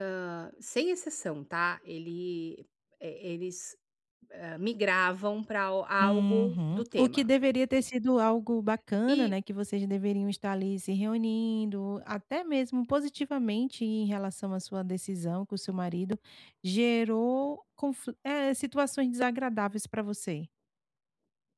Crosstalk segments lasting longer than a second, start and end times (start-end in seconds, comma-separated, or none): 6.0-7.3